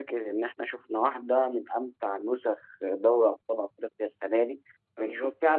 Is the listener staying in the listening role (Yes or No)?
Yes